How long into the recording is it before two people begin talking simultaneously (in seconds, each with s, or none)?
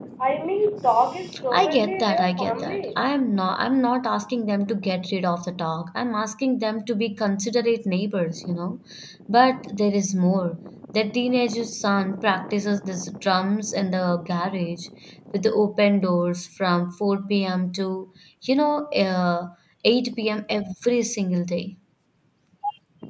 1.5 s